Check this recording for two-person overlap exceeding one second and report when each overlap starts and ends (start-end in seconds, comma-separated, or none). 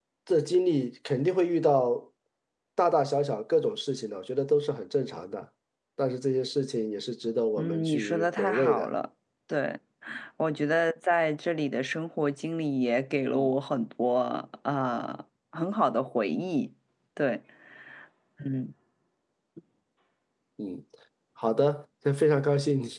7.6-8.9